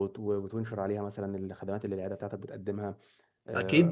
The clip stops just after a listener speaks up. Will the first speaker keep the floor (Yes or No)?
No